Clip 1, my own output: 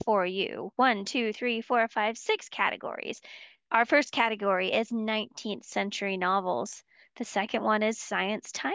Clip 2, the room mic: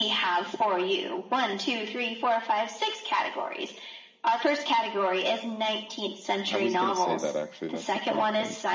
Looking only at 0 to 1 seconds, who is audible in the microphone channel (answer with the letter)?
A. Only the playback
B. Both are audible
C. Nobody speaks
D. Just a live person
A